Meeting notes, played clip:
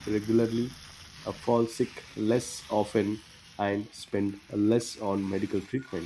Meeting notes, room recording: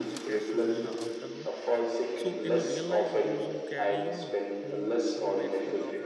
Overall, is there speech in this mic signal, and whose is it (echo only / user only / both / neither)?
both